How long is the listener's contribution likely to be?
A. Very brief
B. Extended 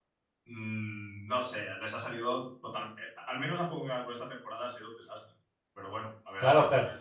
B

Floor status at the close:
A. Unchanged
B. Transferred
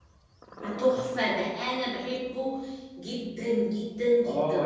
B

